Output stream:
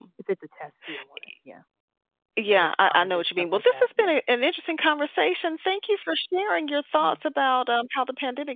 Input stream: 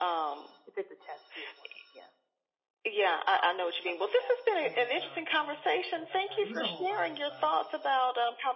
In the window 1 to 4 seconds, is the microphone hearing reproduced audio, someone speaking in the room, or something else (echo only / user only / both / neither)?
echo only